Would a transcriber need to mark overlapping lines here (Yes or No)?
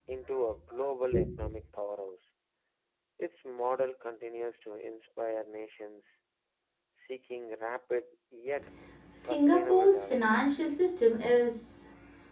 Yes